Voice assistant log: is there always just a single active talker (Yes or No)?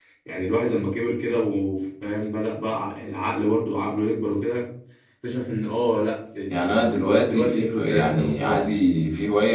No